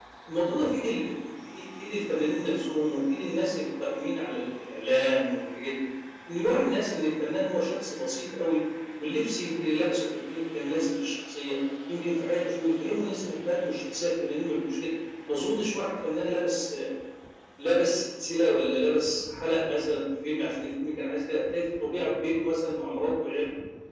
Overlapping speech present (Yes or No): No